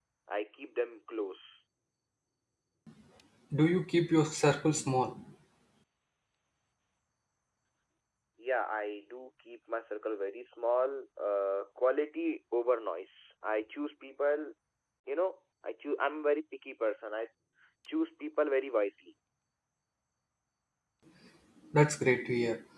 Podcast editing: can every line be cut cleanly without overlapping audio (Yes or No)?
Yes